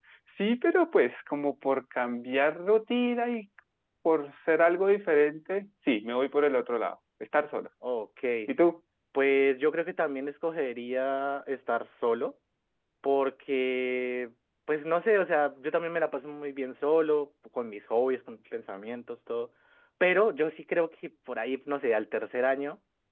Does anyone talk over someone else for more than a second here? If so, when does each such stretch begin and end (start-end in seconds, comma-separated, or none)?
none